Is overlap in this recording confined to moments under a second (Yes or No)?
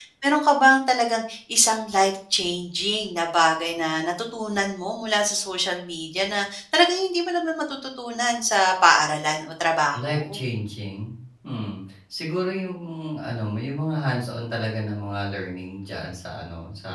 Yes